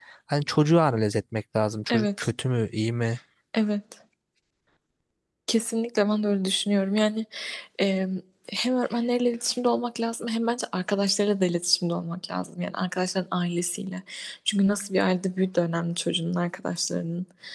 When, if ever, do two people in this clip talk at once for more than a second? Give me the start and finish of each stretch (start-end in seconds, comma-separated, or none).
none